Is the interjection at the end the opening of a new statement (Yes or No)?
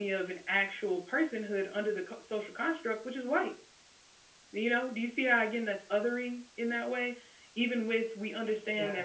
No